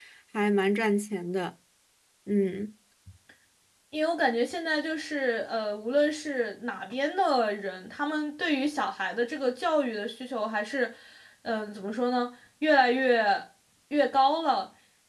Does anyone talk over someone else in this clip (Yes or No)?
No